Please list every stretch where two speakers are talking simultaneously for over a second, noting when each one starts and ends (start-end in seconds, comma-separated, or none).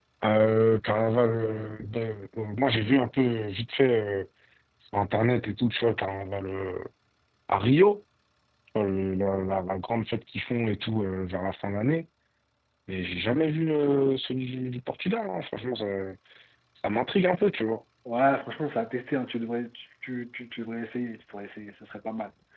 none